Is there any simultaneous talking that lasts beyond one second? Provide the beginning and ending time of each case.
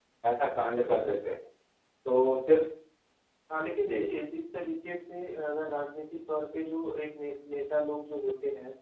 none

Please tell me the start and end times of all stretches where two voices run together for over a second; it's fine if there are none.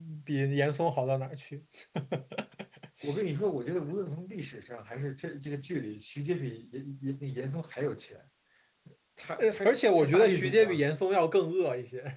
9.4-10.8

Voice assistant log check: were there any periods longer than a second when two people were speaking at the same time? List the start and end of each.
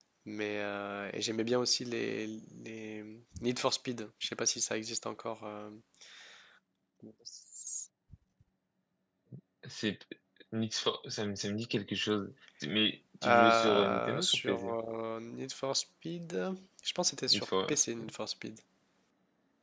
13.2-14.8

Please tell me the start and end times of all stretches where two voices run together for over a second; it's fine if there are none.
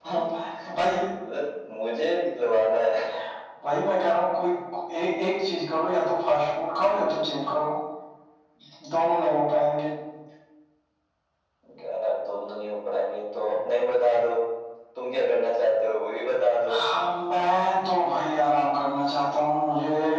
none

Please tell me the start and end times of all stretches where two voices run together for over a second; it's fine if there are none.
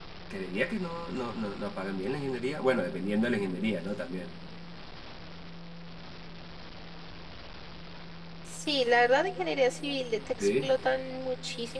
none

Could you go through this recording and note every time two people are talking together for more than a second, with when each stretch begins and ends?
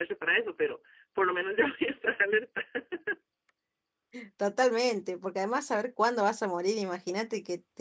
none

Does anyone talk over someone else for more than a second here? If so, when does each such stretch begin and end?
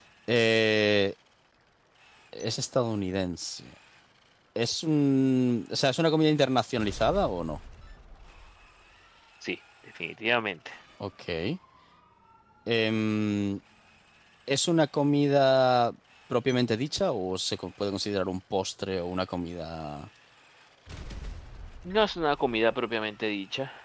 none

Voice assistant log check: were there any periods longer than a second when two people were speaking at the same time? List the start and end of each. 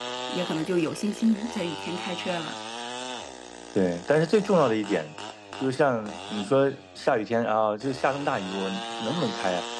none

